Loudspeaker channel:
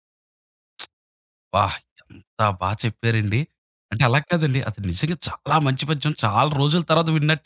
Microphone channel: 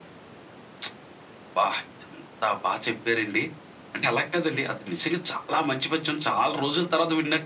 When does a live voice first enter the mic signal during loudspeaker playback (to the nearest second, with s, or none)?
none